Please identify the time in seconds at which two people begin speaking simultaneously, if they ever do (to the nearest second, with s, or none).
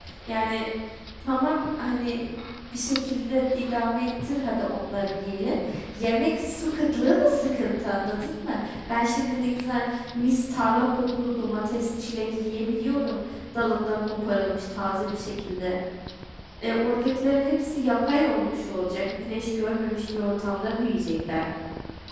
none